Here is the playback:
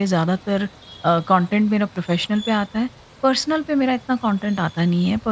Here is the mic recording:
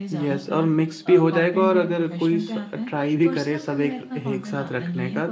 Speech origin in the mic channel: both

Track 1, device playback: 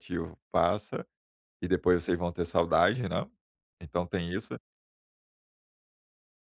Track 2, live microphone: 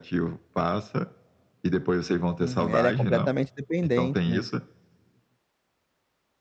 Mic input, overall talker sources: both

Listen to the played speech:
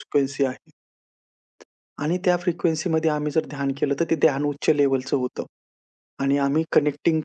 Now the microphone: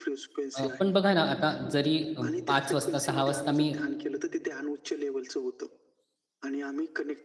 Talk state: both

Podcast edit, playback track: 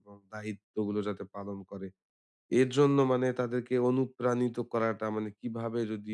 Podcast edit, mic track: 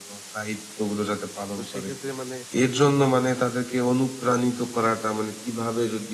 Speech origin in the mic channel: both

